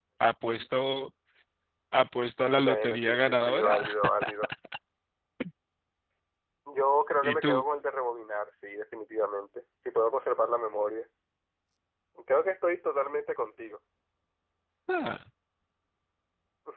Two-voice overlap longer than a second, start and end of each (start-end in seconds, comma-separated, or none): 2.6-3.9